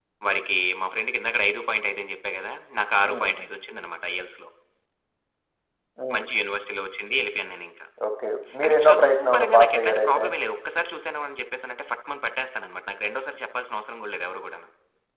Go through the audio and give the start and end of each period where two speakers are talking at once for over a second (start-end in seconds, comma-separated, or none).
8.6-10.2